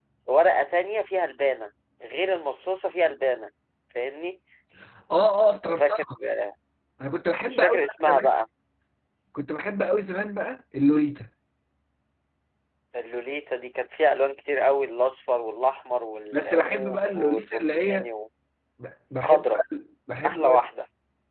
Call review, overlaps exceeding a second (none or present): present